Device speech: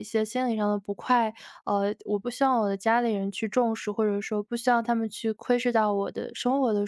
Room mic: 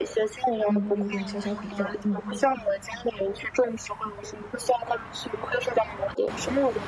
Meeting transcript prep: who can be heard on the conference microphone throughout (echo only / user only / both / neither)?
both